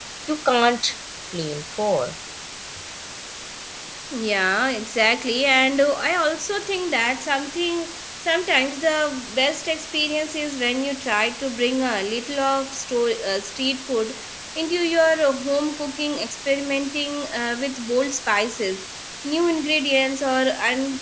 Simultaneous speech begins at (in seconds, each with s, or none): none